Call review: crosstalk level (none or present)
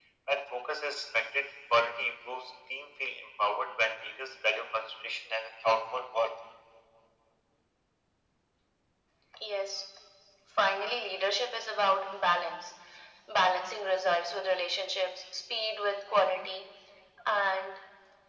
none